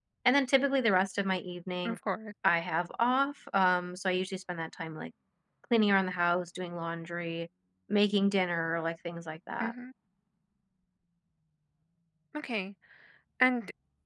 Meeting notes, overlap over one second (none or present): none